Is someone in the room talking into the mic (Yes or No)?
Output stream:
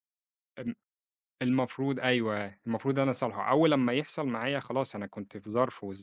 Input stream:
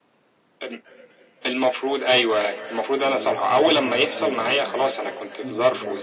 Yes